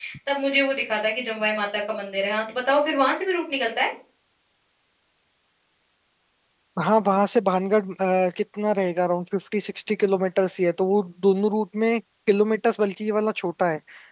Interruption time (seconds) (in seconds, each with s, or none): none